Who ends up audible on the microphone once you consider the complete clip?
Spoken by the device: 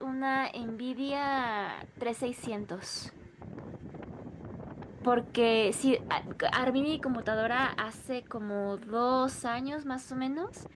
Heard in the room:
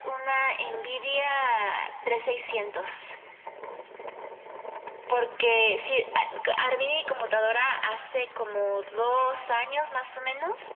echo only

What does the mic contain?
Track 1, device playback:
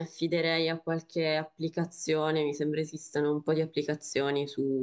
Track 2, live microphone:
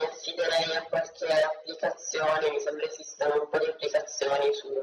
echo only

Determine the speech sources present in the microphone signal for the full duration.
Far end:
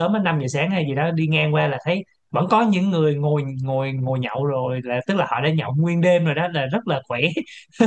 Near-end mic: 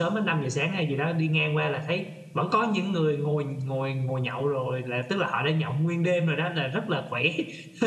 echo only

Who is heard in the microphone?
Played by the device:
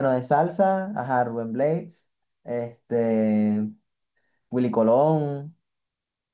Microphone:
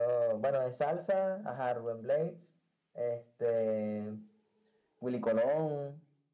echo only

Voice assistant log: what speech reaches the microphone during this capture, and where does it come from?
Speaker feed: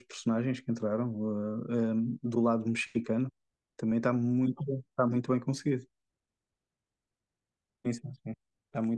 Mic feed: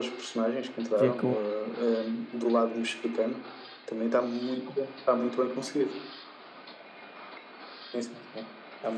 both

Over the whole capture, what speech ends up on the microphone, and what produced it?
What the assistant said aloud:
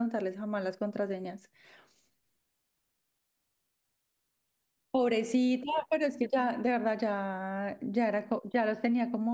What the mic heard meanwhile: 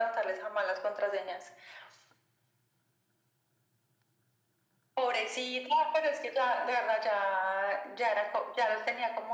echo only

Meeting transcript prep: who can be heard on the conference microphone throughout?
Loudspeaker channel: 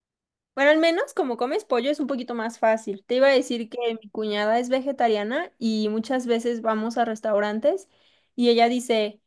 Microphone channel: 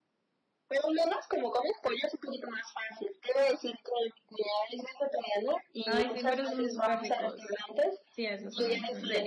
both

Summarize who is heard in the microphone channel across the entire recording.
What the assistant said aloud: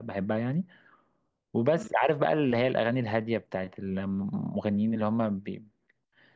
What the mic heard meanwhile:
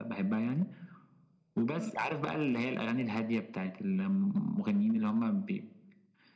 echo only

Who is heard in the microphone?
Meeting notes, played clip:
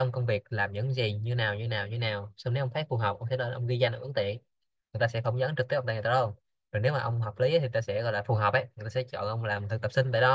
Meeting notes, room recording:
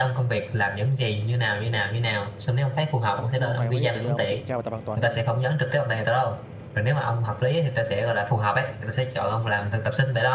both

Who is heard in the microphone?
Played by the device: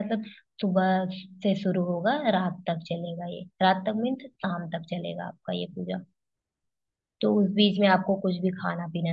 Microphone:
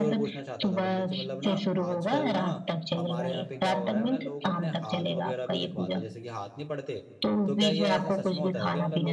both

